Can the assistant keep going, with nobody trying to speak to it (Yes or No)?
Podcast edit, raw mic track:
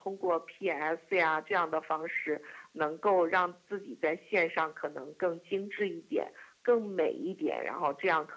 Yes